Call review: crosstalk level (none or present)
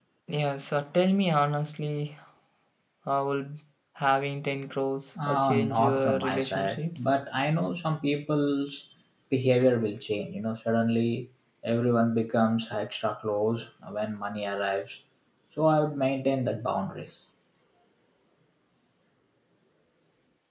present